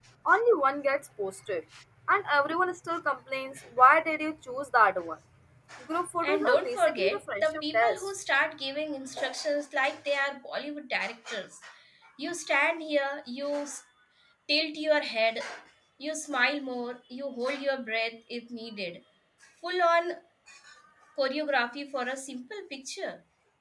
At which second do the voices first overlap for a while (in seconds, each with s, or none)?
6.2 s